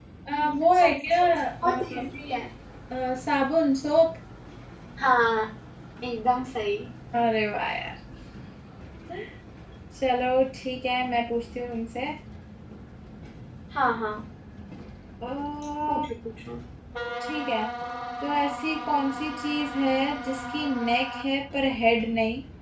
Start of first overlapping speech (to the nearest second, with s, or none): 1 s